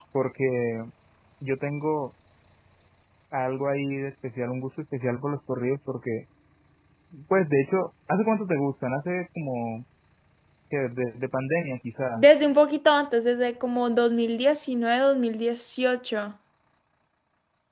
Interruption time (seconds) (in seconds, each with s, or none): none